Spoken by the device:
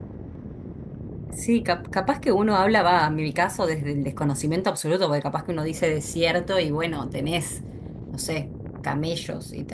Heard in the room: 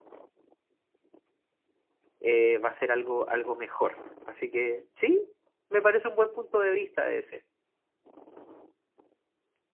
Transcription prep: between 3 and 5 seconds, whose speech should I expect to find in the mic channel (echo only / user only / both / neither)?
user only